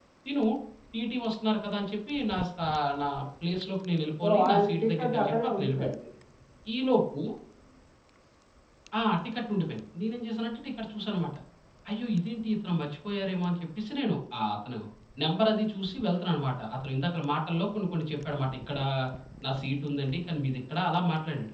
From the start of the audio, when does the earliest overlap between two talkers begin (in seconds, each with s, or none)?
4.2 s